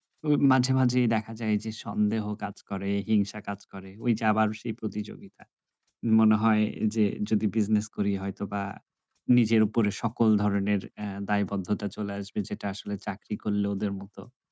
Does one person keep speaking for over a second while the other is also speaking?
No

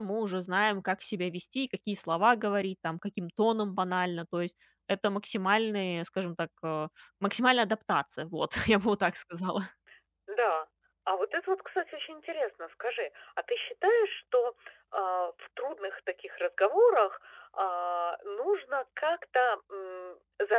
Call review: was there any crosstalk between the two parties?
No

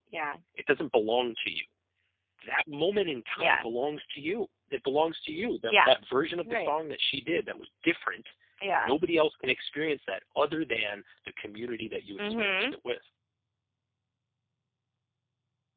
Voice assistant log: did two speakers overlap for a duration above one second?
No

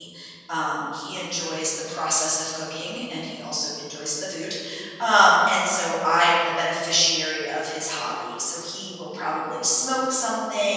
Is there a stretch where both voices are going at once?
No

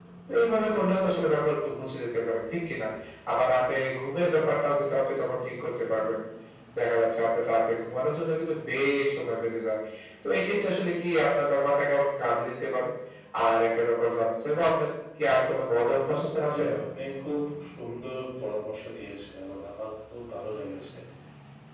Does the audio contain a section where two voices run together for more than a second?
No

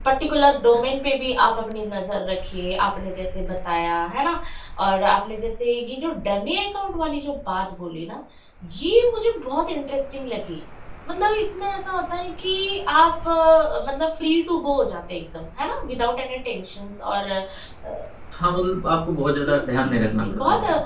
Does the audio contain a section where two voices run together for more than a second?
Yes, from 19.4 s

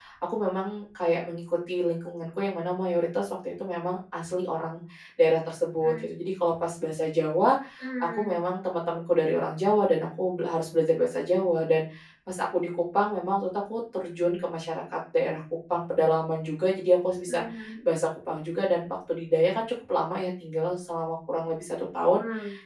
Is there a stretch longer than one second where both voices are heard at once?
No

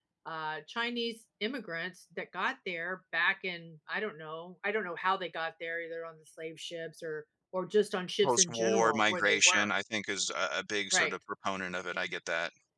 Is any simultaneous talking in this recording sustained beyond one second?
Yes, from 8.2 s

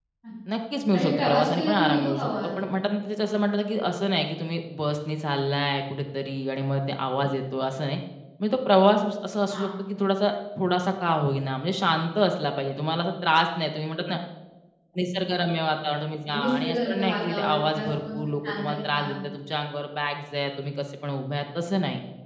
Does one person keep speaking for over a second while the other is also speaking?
Yes, from 0.9 s

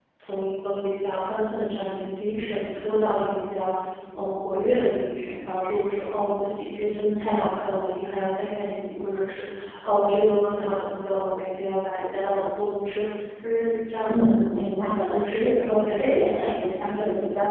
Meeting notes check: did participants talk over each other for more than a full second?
Yes, from 14.1 s

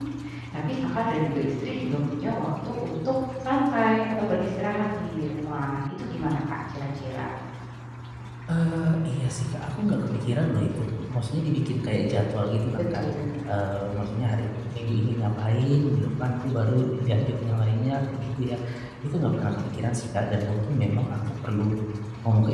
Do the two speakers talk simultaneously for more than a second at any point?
No

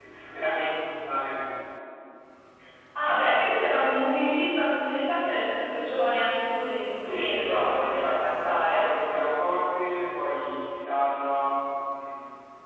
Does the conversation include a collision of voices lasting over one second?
Yes, from 7.0 s

